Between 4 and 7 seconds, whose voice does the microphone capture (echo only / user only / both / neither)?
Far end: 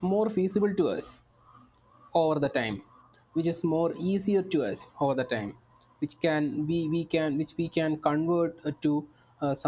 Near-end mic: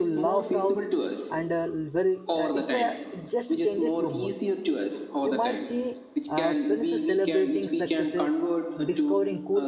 both